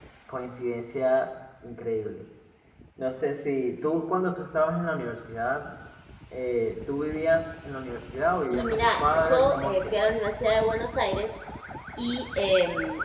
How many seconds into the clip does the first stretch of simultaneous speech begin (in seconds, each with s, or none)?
8.5 s